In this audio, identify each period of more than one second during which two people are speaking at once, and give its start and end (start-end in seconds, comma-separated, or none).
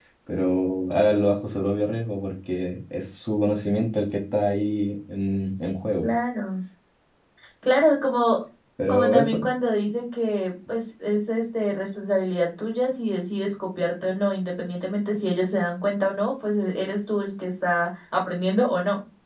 none